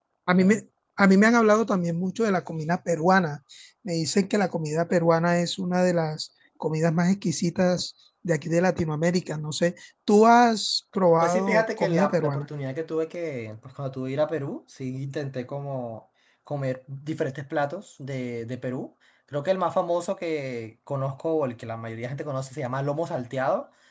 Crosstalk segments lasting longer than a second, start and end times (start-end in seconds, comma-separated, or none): 11.2-12.4